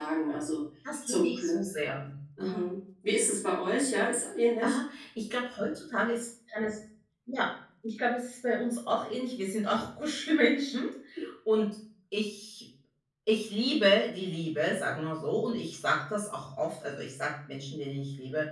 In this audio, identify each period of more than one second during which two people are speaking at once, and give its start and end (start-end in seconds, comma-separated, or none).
none